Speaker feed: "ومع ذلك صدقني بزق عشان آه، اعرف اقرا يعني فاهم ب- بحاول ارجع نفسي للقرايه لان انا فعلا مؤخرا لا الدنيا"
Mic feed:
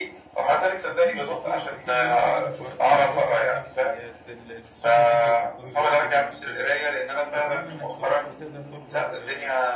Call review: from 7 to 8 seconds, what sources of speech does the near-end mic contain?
both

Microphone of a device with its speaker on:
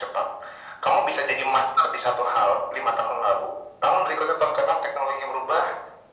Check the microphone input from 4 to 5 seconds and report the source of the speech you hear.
echo only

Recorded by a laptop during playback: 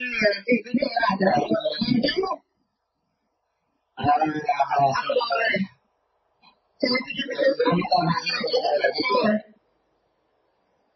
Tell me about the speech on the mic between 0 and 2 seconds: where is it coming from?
echo only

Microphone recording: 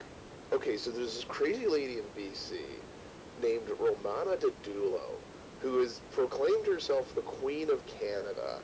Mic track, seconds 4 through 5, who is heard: echo only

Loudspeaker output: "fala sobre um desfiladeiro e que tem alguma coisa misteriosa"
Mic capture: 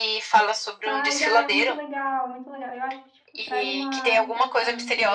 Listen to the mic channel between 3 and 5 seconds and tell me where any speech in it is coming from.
both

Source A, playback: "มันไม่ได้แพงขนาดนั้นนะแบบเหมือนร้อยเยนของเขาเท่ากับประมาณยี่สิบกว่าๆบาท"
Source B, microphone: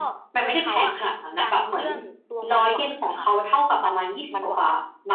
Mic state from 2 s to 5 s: both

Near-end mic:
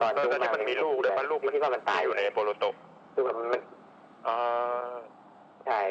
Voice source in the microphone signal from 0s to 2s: echo only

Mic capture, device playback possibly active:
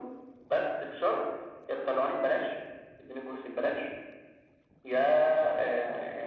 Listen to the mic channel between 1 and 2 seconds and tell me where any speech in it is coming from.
echo only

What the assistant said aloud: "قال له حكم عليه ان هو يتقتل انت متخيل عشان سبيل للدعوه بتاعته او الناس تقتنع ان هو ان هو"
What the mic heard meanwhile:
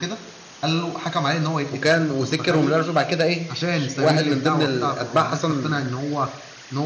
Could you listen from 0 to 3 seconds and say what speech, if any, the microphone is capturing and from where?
both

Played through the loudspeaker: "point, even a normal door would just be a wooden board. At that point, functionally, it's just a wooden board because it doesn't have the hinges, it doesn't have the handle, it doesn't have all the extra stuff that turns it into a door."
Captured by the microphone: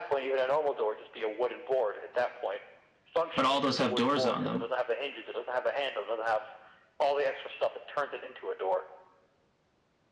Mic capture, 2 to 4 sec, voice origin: both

